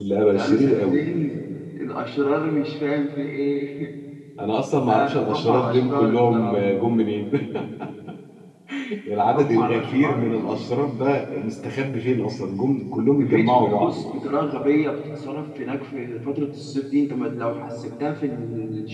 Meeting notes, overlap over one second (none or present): present